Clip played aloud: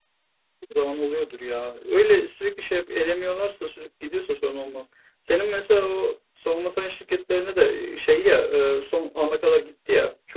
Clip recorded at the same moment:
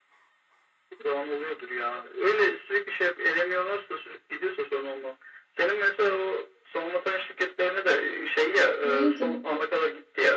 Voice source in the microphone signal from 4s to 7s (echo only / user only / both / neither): echo only